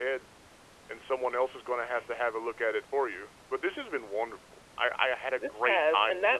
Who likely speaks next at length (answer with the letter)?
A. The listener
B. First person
A